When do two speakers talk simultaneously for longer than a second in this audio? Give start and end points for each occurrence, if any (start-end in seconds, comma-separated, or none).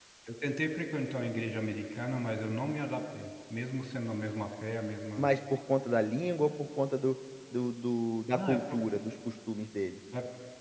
none